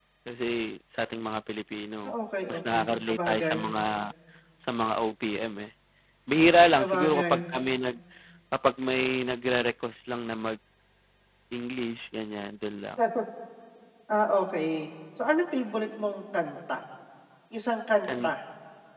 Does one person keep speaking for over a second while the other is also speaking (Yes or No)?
Yes